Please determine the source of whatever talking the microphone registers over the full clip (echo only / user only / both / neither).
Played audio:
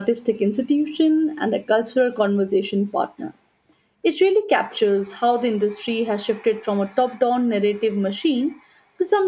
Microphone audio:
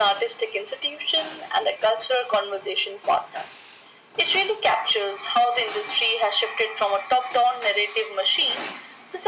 echo only